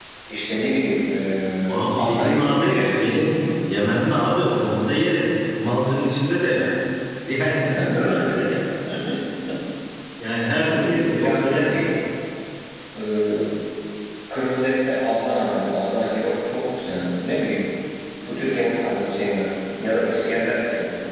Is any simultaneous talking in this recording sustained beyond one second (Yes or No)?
Yes